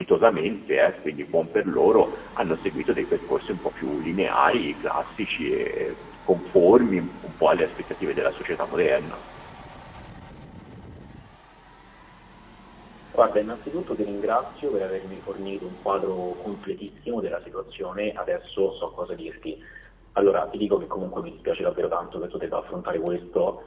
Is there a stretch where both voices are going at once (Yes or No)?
No